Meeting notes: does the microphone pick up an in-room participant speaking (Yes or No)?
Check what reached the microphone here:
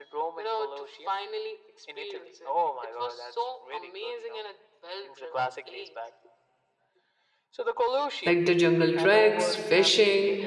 Yes